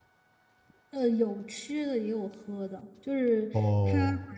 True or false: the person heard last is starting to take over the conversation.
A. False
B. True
A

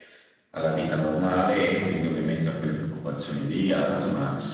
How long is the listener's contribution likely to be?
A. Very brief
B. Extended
A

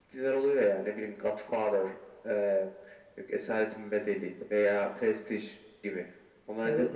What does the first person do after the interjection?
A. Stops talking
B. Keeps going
A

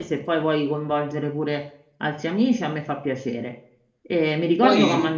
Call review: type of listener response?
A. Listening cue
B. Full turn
A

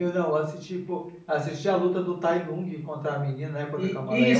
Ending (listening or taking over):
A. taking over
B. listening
A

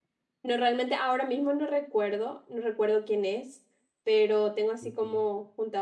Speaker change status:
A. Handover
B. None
B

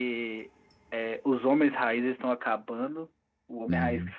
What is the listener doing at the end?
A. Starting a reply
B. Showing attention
B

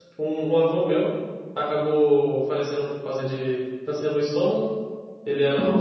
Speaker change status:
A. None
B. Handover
A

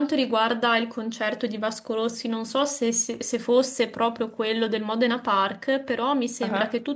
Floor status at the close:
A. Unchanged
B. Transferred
A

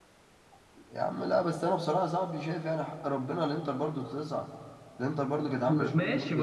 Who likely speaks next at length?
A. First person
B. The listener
B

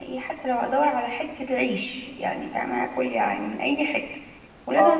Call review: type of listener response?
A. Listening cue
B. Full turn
A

